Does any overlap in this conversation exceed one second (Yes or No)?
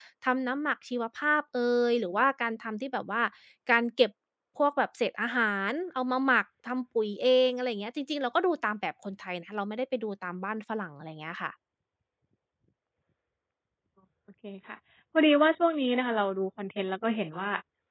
No